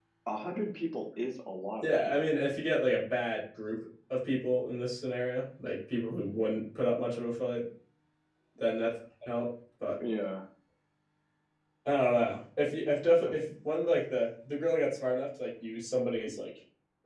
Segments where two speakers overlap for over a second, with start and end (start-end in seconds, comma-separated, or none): none